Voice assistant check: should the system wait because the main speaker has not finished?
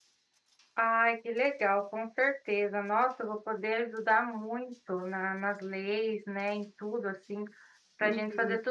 Yes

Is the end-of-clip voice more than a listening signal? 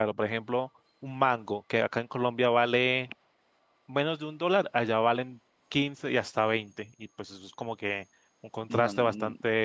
Yes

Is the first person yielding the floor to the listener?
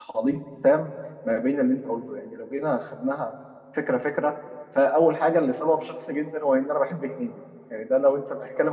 No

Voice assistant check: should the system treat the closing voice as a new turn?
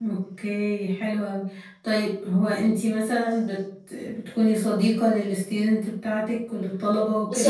Yes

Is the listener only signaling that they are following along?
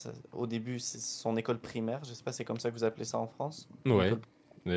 No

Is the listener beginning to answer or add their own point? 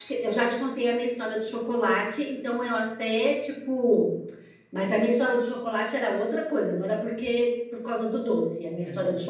No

